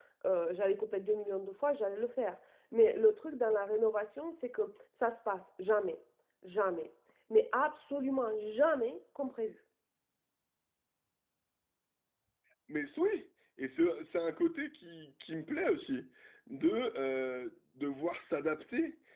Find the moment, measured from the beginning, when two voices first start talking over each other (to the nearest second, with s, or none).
none